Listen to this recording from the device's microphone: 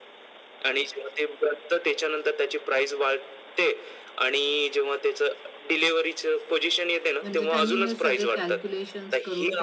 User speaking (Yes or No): Yes